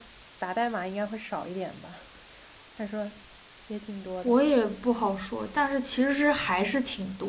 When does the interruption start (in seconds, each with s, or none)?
none